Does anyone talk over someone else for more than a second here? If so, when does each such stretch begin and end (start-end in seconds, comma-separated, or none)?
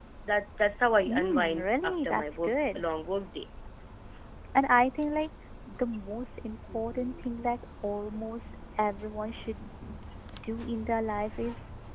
1.1-2.8